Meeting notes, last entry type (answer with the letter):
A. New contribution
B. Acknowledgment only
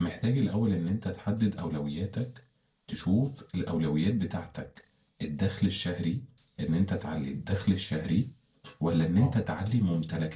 B